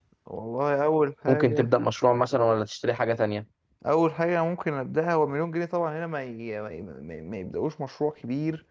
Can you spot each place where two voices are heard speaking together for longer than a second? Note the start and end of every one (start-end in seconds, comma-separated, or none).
none